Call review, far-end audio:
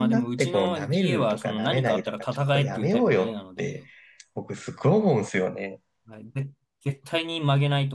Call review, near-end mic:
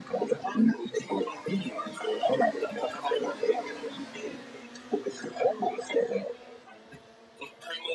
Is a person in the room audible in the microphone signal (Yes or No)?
No